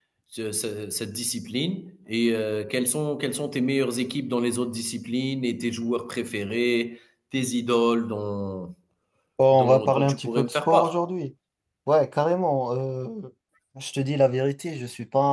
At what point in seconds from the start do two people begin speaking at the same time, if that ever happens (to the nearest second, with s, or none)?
10 s